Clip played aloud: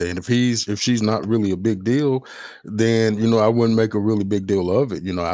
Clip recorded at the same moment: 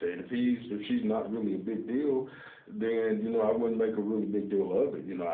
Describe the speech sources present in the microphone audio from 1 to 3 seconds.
echo only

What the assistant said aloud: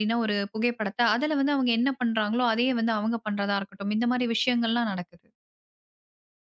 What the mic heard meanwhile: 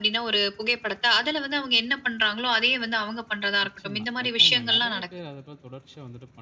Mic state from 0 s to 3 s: echo only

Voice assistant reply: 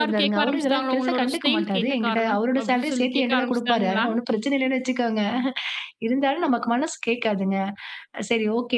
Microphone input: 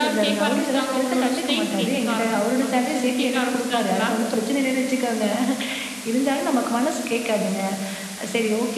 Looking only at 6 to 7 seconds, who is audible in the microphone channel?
echo only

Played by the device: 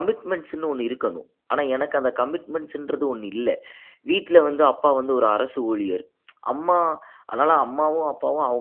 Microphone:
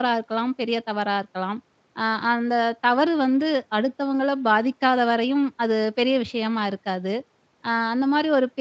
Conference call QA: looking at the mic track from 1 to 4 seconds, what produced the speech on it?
user only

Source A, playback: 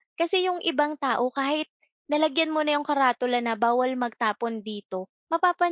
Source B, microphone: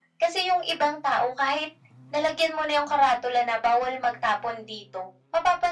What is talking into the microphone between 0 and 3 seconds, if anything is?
echo only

